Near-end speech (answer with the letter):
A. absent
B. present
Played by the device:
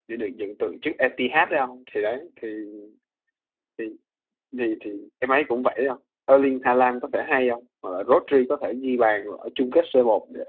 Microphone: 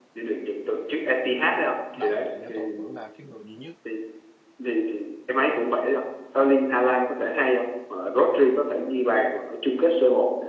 B